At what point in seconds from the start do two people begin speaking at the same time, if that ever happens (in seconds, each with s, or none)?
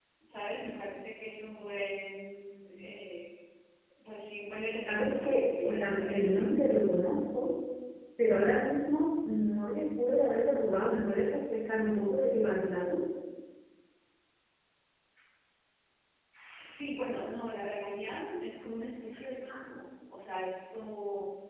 4.8 s